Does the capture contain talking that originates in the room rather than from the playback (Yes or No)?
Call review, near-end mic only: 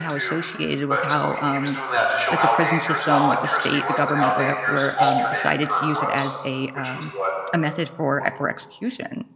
Yes